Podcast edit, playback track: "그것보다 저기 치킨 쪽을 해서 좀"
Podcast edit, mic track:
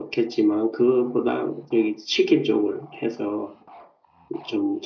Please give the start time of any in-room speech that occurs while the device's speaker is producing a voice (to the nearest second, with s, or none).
none